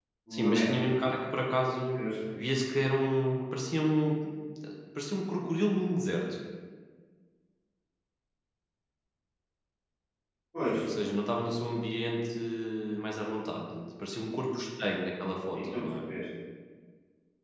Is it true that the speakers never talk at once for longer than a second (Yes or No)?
Yes